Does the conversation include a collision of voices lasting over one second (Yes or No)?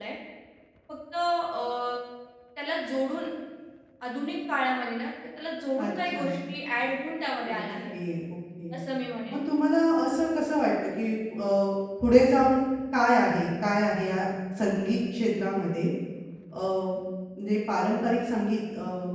No